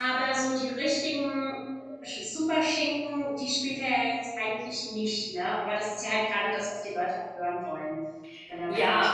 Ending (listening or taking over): taking over